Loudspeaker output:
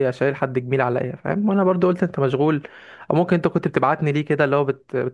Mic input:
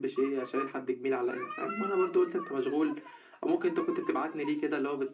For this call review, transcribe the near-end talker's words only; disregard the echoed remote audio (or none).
none